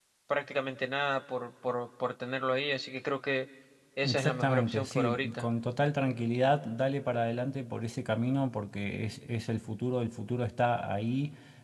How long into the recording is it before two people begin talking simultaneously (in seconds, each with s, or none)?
4.0 s